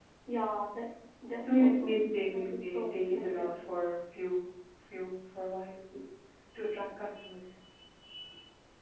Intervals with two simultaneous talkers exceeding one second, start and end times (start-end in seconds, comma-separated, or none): 1.6-3.4